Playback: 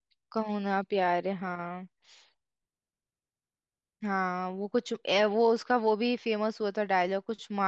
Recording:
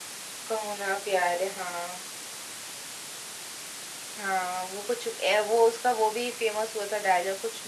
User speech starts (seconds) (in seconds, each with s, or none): none